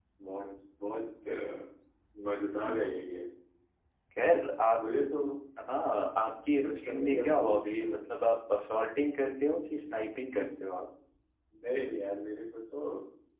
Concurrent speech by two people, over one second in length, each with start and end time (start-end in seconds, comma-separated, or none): 6.6-8.0